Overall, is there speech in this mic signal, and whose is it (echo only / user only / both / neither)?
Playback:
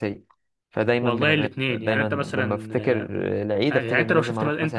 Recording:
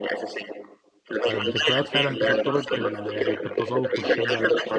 both